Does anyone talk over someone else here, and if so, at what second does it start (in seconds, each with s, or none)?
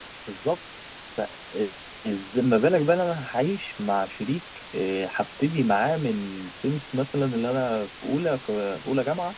none